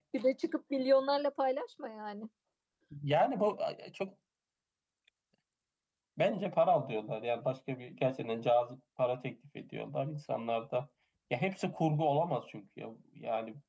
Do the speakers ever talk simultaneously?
No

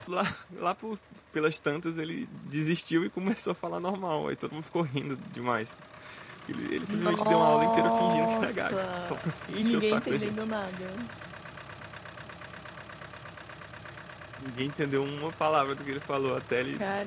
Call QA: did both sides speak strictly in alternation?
No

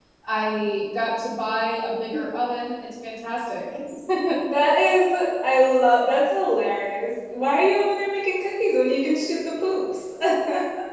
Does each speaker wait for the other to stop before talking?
Yes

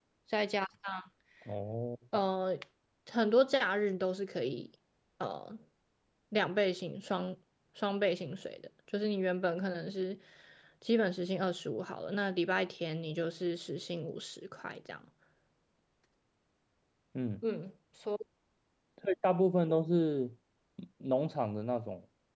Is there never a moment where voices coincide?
Yes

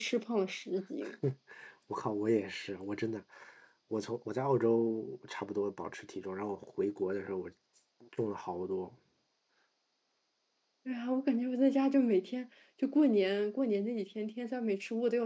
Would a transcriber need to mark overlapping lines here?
No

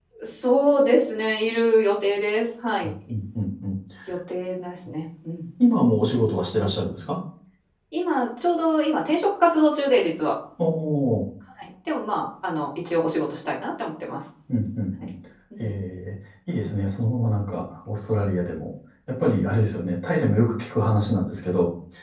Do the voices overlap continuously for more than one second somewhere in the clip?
No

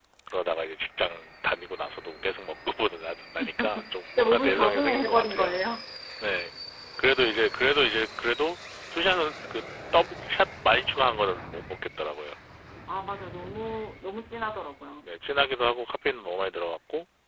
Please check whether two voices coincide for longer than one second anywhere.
Yes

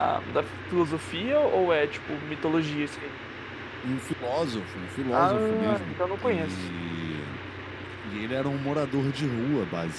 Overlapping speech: Yes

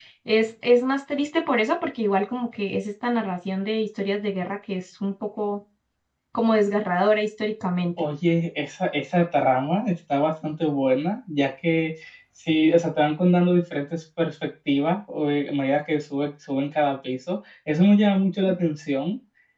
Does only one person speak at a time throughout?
Yes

